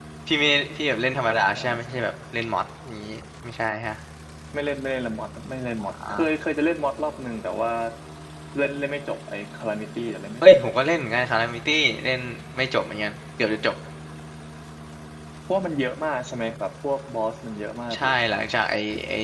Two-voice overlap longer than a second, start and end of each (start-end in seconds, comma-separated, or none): none